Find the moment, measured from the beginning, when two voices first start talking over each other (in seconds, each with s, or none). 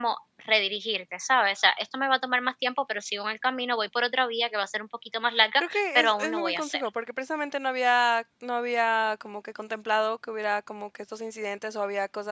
5.6 s